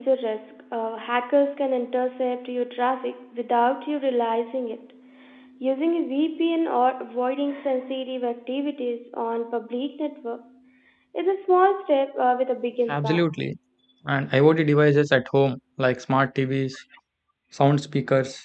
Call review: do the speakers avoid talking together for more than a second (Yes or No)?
Yes